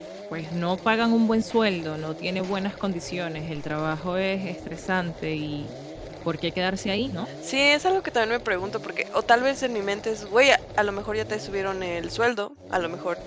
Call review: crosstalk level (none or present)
none